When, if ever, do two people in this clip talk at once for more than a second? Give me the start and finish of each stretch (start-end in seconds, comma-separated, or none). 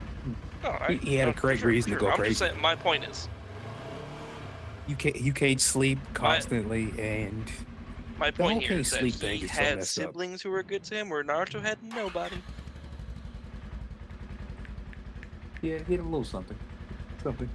0.9-2.6, 8.4-10.1